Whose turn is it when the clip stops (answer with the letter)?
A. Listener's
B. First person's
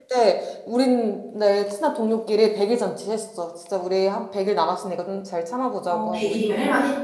A